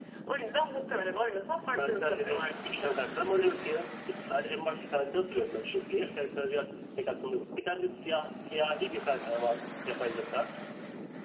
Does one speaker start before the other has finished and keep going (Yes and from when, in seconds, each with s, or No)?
Yes, from 1.7 s